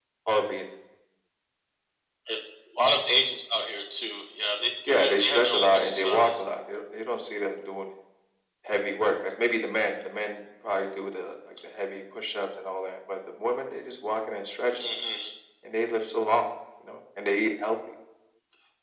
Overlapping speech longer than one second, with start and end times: 4.9-6.4

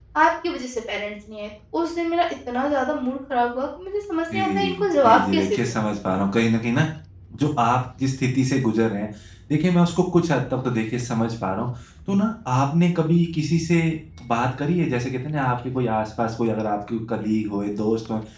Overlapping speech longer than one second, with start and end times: 4.3-5.6

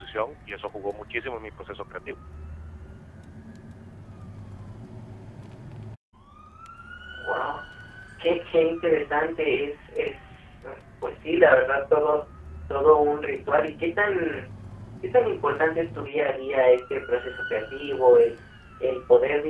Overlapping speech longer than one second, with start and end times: none

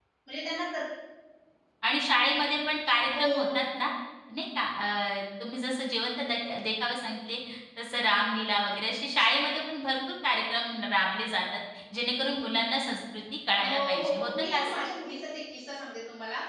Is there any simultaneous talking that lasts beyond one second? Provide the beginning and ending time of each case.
13.5-14.8

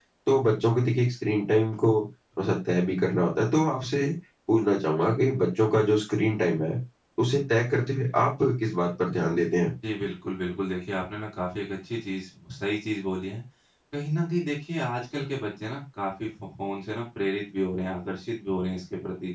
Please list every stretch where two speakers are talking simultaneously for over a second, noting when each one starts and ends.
none

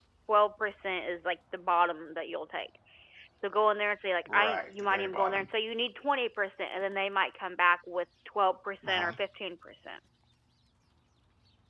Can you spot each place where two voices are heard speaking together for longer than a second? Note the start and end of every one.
4.3-5.5

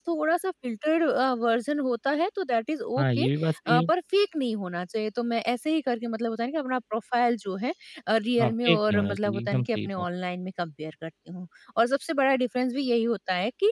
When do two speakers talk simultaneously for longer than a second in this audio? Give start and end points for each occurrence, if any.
8.4-10.0

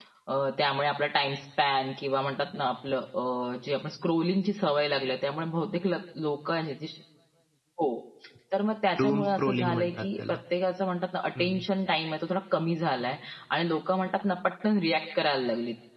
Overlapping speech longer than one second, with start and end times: 9.0-10.3

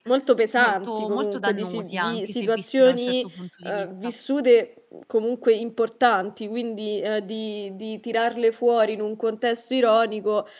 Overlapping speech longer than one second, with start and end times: 0.6-3.3

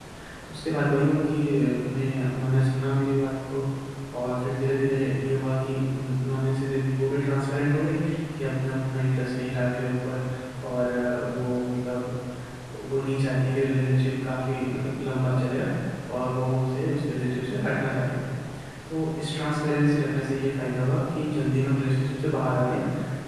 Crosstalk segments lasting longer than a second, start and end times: none

